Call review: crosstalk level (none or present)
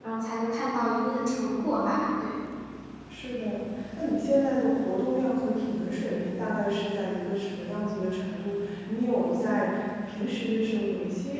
none